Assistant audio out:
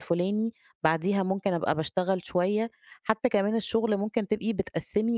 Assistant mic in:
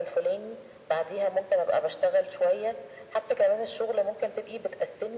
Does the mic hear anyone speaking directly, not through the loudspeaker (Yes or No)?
No